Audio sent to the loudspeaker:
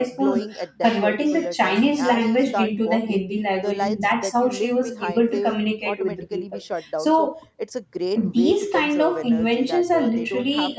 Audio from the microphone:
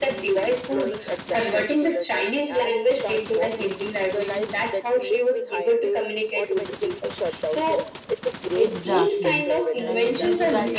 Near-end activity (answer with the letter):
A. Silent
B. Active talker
B